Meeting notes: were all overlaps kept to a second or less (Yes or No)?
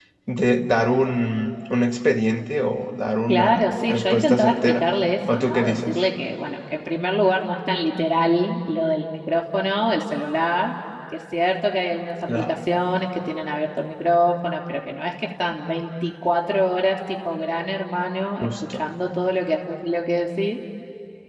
No